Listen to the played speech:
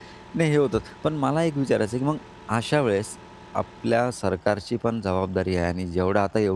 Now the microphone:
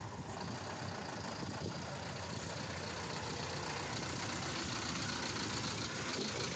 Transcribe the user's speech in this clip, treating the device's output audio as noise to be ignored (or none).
none